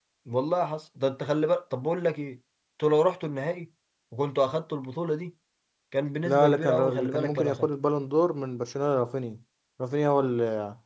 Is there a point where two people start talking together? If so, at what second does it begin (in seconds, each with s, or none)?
6.2 s